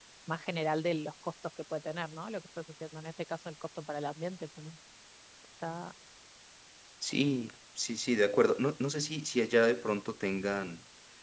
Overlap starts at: none

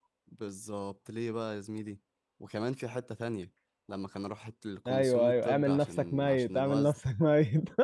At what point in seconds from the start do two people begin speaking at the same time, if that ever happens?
4.8 s

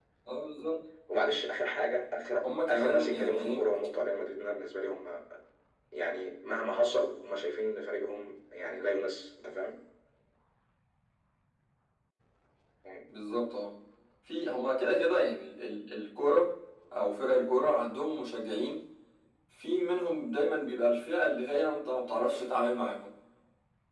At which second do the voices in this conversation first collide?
2.4 s

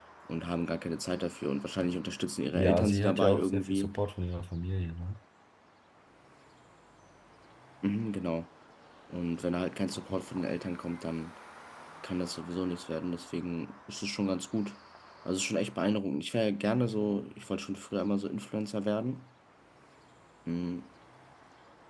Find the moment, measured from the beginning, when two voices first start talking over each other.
2.6 s

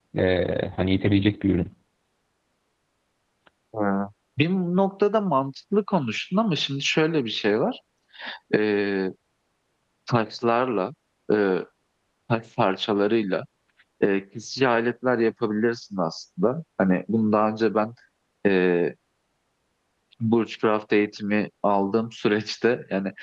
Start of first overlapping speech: none

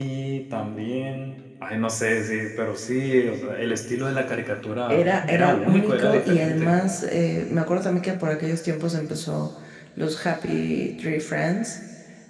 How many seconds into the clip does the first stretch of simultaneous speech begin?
4.9 s

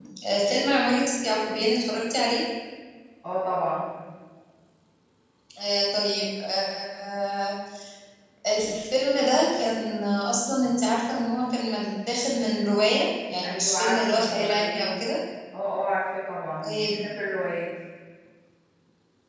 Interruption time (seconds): 13.4 s

